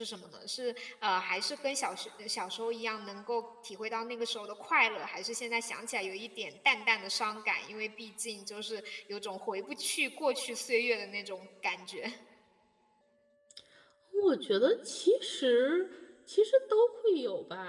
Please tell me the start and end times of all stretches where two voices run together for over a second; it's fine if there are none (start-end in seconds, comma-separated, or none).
none